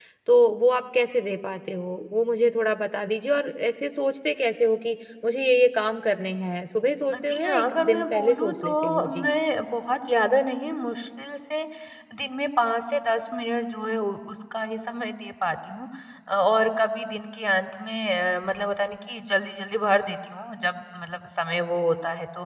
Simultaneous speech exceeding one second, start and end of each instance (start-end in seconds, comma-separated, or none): 7.1-9.3